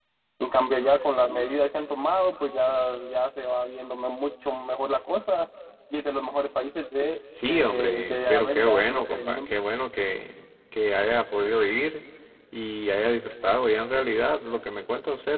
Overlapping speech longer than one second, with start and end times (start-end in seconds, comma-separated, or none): 7.5-9.5